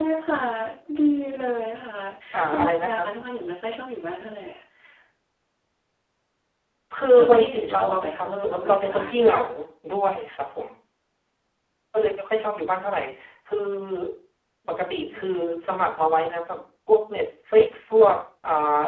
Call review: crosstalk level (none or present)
present